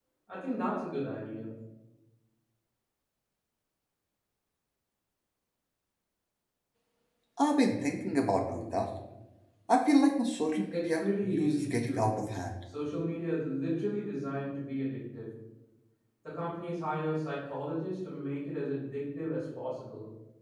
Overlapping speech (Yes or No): Yes